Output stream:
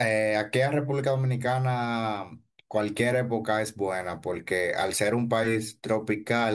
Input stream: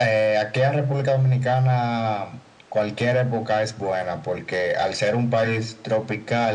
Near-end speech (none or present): none